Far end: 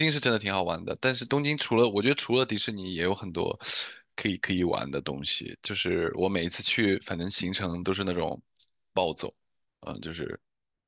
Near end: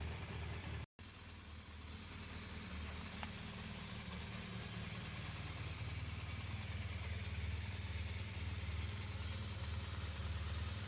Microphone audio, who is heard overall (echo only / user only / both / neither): neither